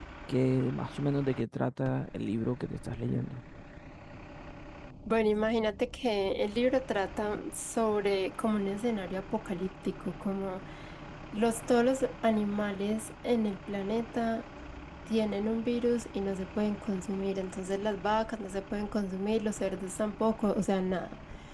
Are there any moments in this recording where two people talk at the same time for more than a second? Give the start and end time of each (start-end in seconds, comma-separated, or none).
none